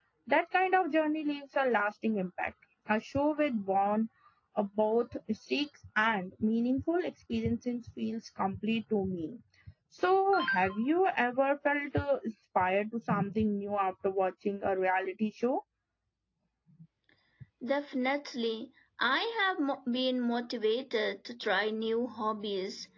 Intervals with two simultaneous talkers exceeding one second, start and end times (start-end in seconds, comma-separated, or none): none